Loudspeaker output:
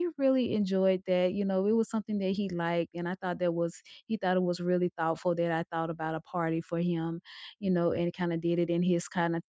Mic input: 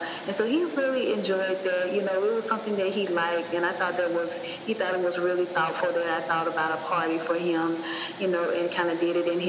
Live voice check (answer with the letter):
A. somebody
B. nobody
B